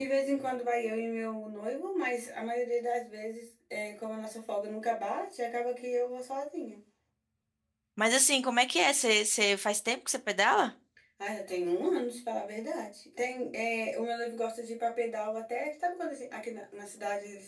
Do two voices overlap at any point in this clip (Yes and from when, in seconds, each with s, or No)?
No